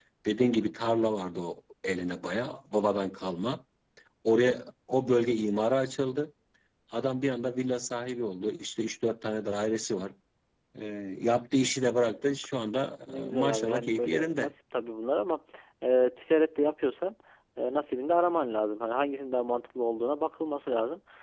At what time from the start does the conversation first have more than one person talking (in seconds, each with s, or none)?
13.1 s